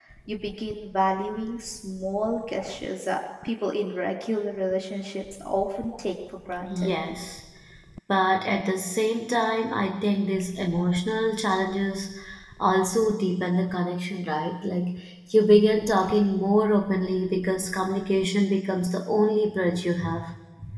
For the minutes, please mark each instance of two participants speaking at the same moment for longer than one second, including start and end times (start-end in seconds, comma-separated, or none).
none